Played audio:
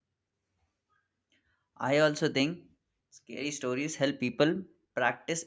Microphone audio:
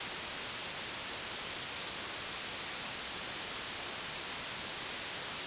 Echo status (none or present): none